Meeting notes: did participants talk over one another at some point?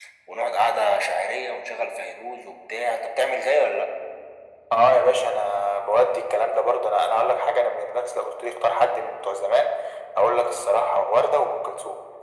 No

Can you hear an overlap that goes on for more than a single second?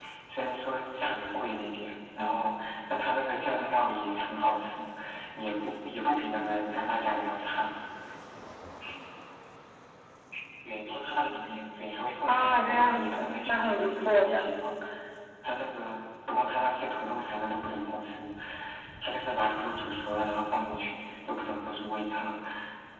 Yes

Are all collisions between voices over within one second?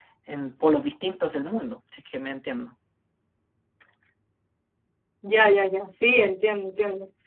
Yes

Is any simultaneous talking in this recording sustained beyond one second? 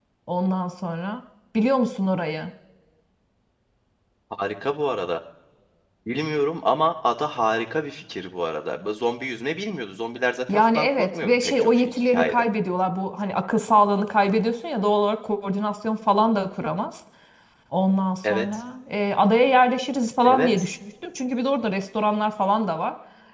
Yes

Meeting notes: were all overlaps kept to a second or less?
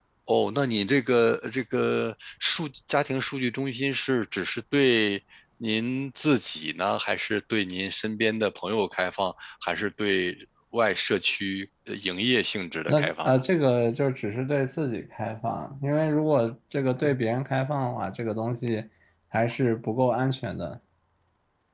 Yes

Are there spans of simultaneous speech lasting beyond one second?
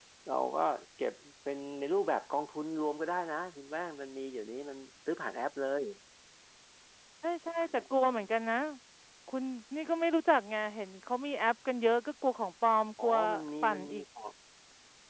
No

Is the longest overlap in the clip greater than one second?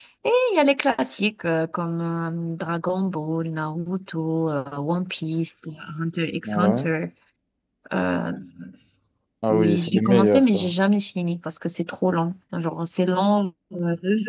Yes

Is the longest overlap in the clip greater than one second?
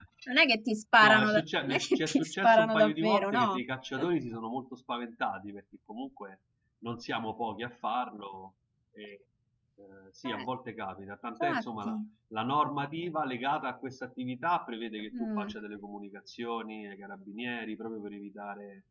Yes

